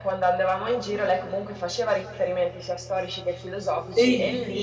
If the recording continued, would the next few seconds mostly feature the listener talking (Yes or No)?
No